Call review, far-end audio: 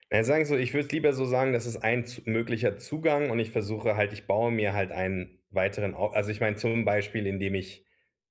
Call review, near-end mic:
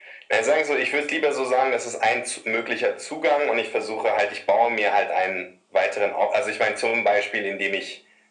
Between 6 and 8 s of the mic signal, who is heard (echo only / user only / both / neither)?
echo only